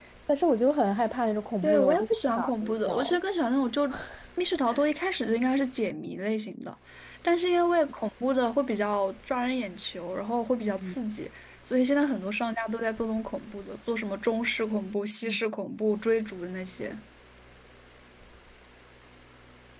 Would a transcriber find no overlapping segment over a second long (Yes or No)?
No